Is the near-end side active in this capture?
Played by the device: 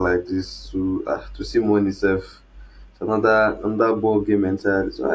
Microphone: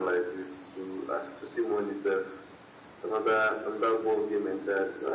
No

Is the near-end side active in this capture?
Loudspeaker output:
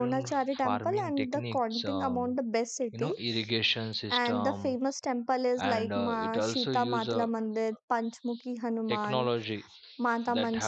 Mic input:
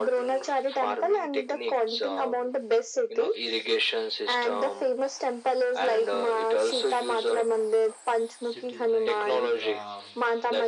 Yes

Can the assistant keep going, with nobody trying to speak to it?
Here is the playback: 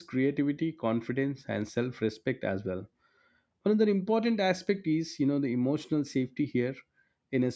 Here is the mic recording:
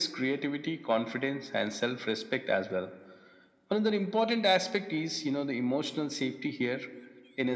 Yes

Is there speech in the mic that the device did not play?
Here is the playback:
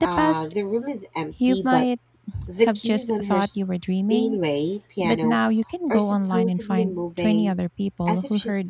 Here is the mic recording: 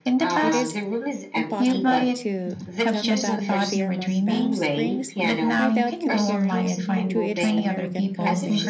Yes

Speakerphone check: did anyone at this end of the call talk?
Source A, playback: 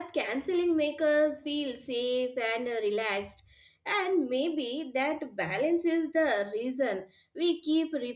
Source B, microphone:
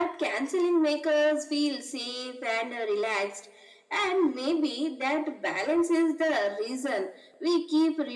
No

